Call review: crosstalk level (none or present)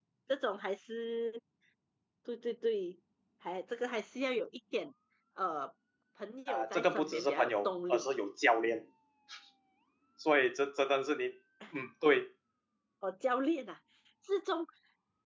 present